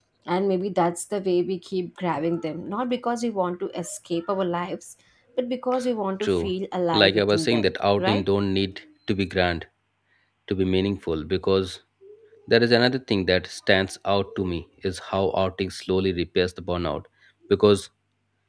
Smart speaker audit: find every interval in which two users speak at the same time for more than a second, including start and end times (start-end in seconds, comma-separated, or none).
6.9-8.2